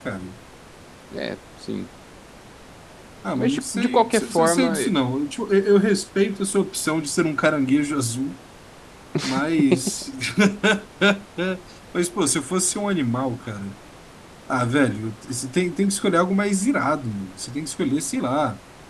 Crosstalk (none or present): present